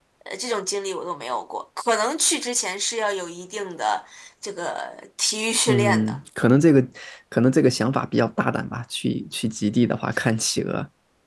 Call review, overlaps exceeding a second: none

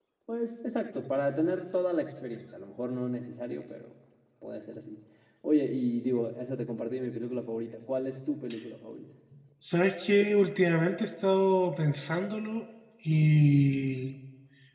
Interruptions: none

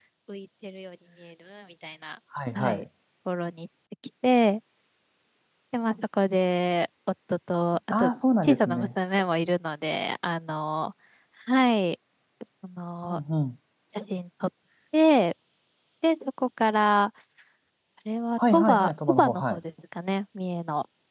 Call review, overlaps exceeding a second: present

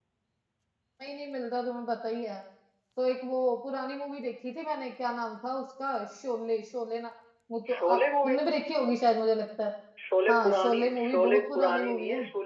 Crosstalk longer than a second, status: present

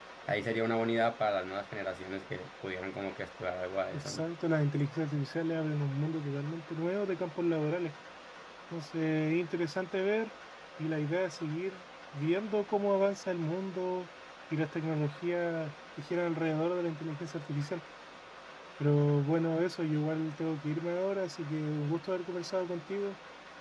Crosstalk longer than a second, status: none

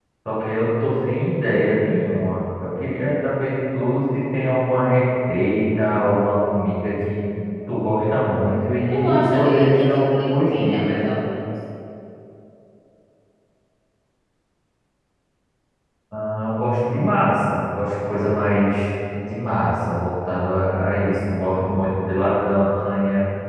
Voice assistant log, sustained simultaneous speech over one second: present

